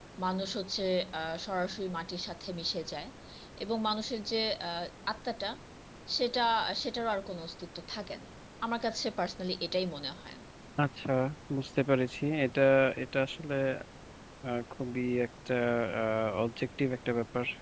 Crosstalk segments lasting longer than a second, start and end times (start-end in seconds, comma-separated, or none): none